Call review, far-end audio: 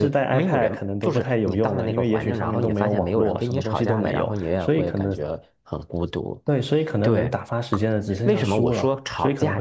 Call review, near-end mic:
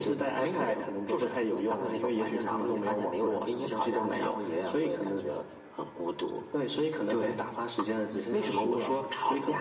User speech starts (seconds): none

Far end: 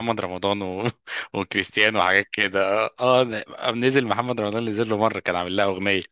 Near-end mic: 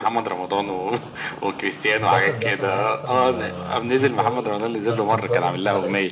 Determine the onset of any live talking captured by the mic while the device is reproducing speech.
2 s

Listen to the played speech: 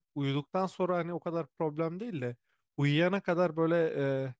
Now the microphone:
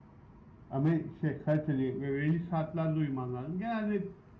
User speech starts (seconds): 1 s

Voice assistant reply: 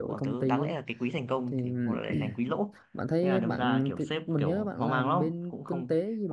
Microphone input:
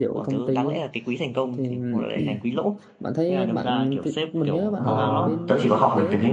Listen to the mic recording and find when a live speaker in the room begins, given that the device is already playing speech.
5 s

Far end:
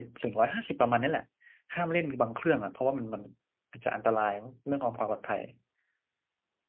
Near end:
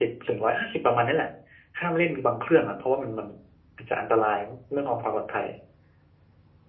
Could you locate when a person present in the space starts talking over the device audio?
none

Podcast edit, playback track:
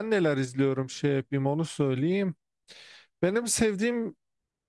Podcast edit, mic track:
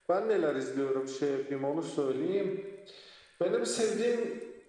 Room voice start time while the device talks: none

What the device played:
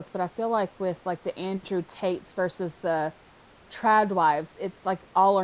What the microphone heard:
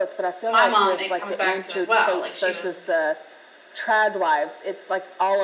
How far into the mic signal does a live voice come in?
0 s

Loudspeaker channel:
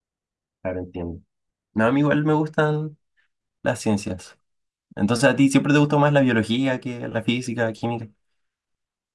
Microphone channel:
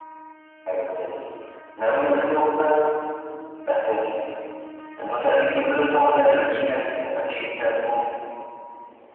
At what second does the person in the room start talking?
none

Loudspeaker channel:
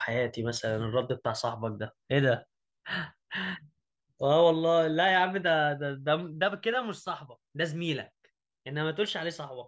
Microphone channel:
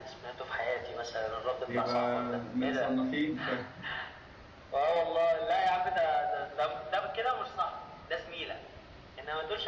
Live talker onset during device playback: 2 s

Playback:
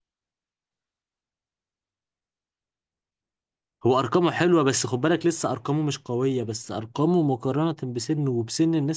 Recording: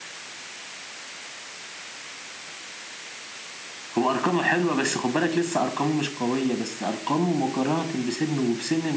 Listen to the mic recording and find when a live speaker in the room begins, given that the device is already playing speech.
none

